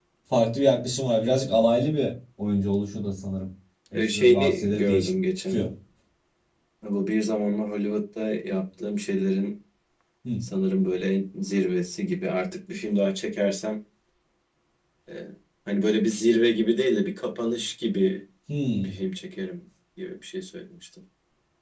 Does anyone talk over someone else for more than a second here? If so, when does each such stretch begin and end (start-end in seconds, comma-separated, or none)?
3.9-5.6